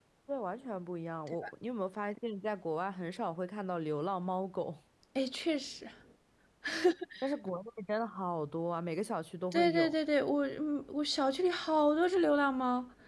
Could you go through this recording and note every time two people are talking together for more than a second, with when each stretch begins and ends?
none

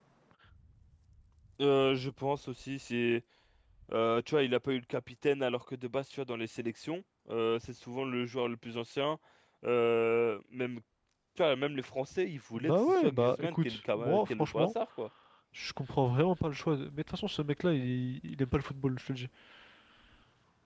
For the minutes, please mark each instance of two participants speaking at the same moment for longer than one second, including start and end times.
12.6-14.7

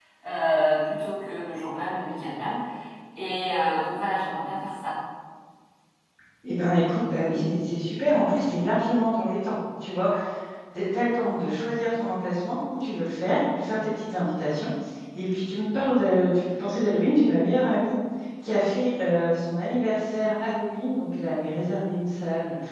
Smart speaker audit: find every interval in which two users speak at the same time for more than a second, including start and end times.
none

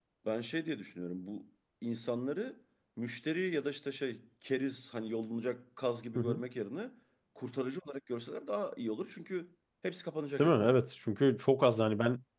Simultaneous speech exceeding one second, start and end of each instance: none

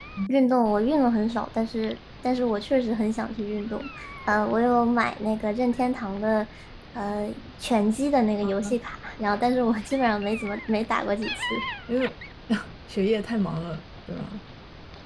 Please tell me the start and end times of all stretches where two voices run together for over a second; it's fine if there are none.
none

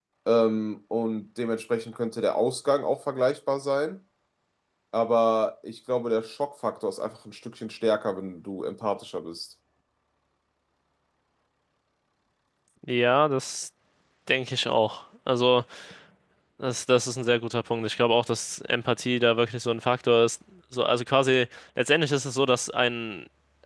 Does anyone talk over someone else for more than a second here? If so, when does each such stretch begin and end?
none

